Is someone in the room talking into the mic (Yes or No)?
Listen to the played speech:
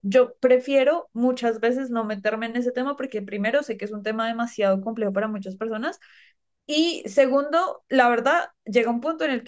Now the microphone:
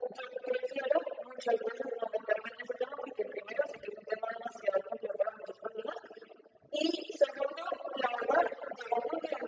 No